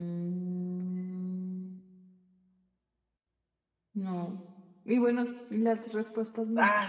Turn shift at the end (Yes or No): Yes